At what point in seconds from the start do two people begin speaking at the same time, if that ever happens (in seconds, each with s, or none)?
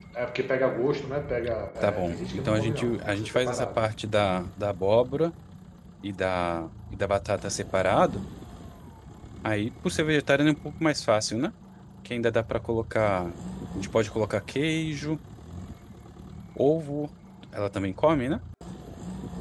1.8 s